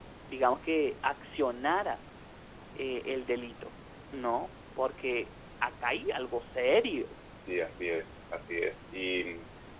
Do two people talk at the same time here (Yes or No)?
No